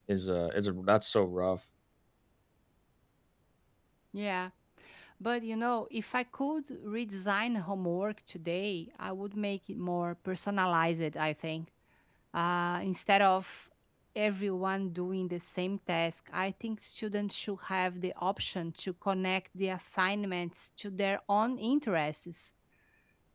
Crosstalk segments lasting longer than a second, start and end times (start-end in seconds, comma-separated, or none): none